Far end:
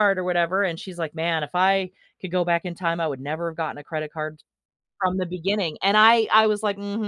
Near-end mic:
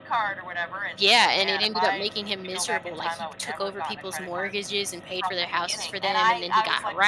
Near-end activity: present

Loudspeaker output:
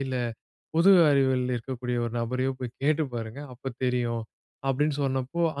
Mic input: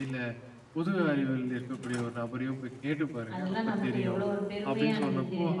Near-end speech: present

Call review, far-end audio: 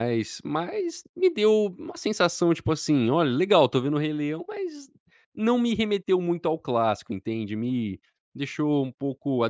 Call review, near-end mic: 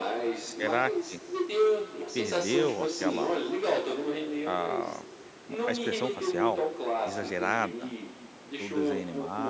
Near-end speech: present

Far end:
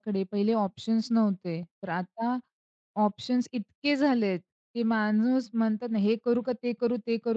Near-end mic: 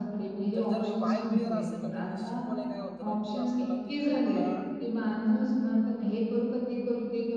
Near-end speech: present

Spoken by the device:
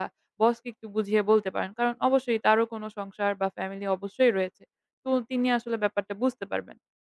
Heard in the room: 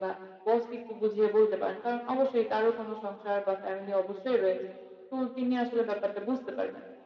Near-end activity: none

